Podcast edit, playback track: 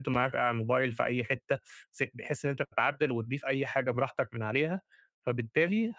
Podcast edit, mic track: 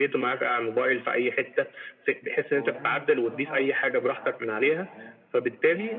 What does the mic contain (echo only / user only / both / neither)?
both